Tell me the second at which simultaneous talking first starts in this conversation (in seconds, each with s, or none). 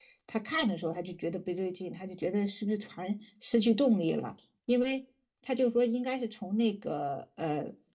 none